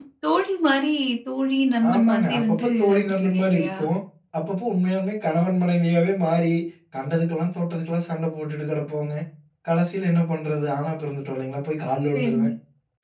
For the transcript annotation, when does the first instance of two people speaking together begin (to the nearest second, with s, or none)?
2 s